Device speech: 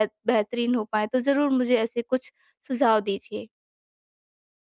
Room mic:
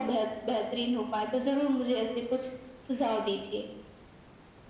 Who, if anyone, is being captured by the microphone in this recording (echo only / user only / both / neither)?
echo only